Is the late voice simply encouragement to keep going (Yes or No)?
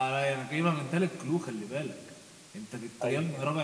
Yes